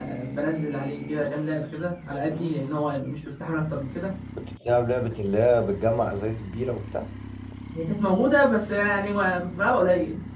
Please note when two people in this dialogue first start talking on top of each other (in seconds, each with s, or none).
none